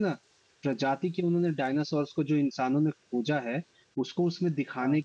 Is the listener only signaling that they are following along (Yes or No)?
Yes